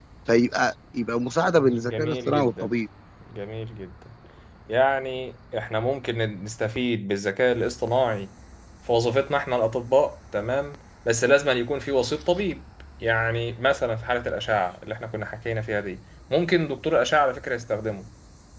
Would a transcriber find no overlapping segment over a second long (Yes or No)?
No